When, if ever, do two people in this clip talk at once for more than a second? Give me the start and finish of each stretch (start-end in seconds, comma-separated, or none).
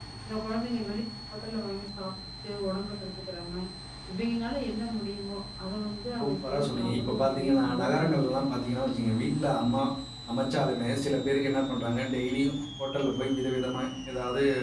6.2-8.5